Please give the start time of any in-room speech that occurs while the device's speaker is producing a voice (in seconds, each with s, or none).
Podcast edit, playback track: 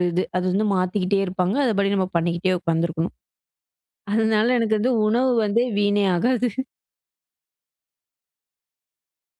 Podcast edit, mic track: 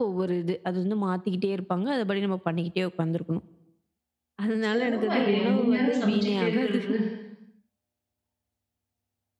4.7 s